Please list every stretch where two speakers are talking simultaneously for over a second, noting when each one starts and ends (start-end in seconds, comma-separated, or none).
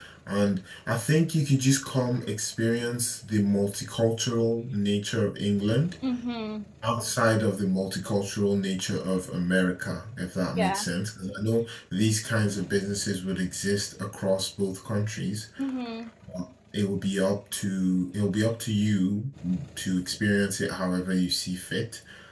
none